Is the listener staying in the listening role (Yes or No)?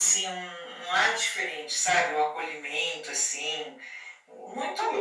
No